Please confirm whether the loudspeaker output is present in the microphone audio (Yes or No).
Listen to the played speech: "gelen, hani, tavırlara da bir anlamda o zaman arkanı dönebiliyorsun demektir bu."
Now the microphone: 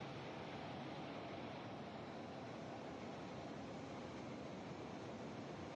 No